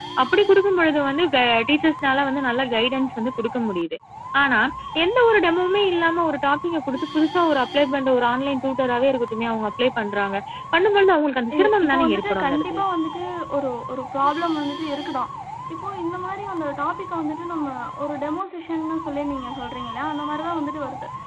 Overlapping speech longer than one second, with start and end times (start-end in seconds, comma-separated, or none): 11.6-12.8